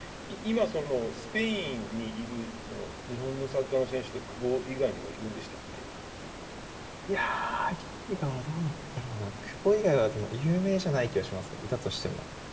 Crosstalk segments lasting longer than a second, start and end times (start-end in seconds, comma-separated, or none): none